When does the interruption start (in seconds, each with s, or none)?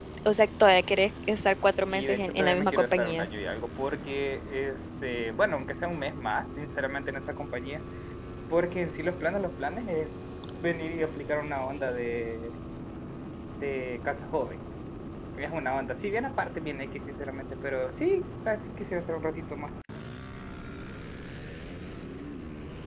1.9 s